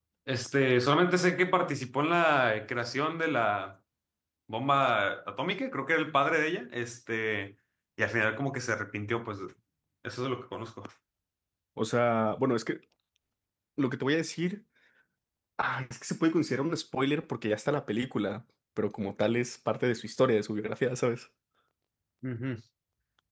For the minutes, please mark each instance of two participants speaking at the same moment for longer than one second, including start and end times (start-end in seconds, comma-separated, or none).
none